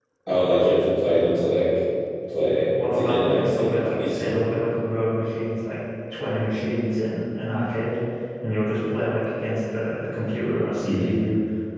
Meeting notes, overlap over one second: present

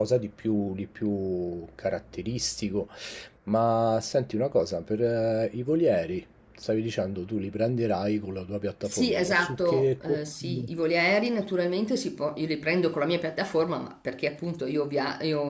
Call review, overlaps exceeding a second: present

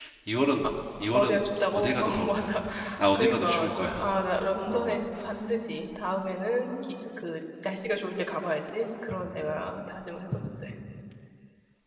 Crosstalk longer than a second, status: present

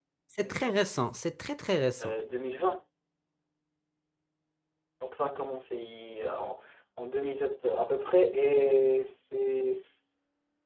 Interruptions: none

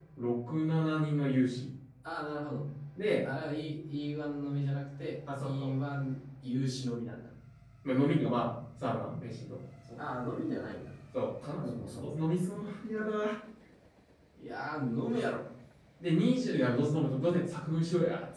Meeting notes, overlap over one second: none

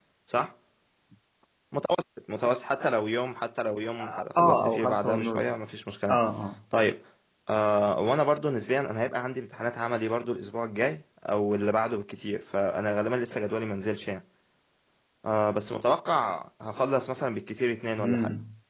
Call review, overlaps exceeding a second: present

